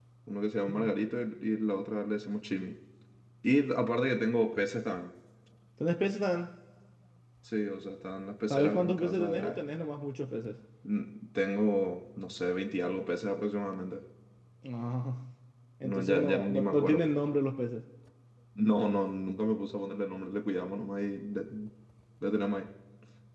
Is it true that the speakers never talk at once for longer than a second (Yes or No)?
No